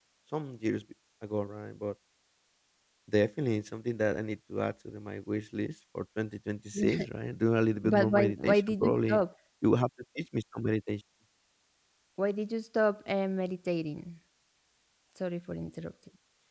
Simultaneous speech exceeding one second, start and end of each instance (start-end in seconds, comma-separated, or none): 7.8-9.2